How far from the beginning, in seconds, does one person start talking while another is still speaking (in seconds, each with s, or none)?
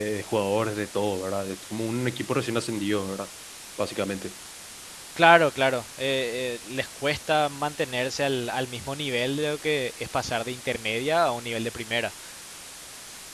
none